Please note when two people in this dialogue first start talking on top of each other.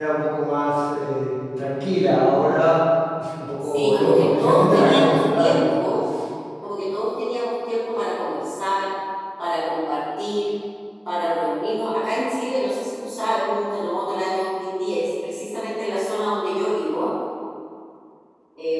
4 s

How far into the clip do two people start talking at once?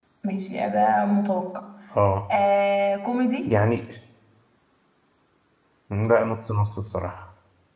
none

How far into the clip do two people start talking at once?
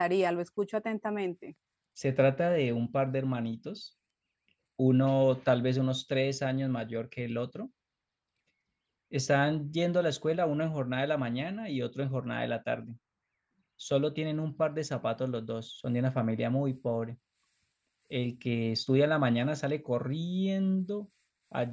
none

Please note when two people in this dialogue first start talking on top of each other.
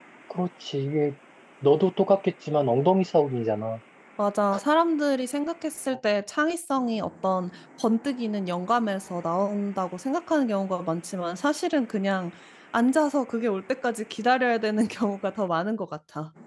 none

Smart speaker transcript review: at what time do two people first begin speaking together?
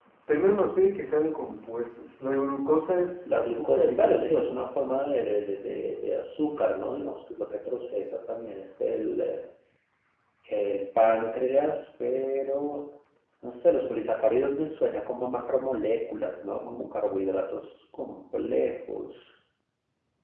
3 s

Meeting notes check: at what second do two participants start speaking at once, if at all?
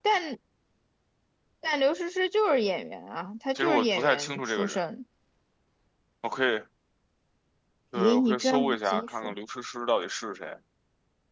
4 s

